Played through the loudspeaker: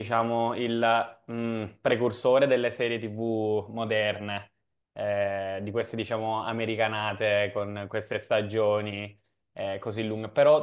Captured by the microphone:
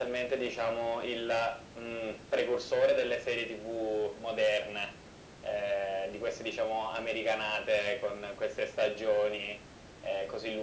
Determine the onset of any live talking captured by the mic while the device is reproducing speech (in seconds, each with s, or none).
none